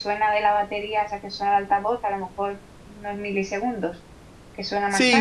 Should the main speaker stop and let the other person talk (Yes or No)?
Yes